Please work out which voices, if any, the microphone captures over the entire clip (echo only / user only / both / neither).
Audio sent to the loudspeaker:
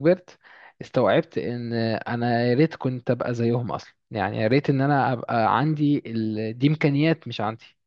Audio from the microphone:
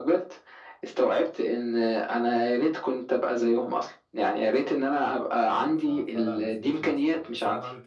both